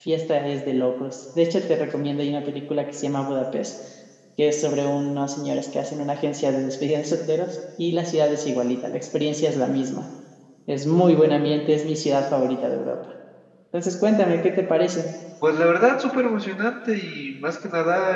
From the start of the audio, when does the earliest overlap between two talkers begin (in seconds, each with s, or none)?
none